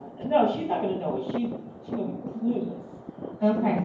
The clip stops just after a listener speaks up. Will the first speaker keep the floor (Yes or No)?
No